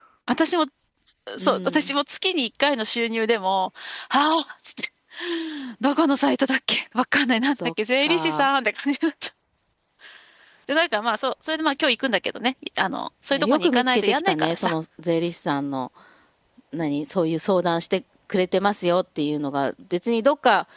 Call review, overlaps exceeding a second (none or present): present